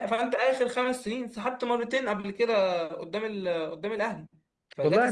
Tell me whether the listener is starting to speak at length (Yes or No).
Yes